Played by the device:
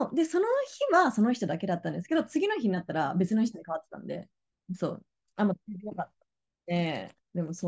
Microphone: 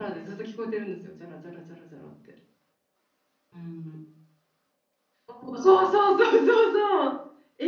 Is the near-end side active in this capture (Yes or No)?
Yes